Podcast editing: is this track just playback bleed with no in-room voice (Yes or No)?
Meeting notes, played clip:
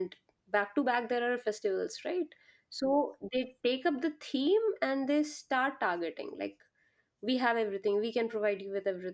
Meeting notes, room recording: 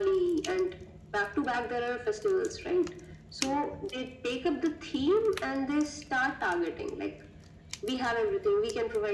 Yes